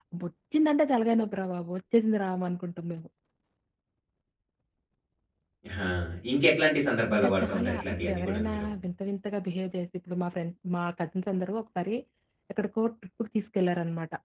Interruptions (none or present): present